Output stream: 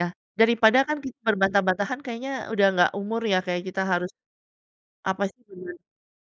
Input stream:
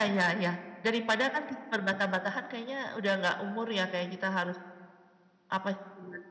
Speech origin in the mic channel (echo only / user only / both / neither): echo only